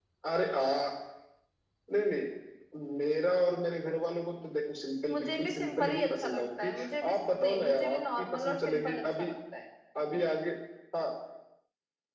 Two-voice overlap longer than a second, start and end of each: 5.1-6.7, 7.1-9.3

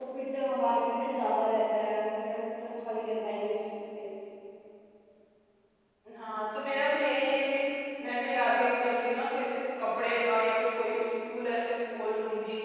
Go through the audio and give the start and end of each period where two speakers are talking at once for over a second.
none

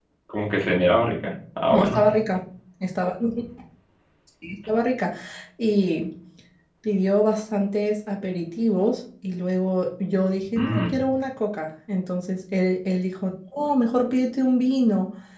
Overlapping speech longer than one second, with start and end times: none

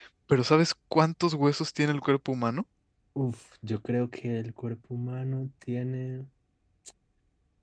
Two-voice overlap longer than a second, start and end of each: none

